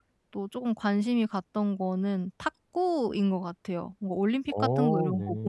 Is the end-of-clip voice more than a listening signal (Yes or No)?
No